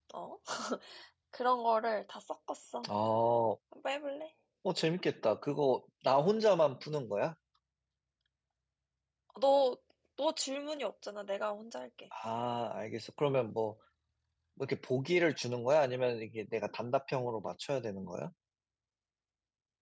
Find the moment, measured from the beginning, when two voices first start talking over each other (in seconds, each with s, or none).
none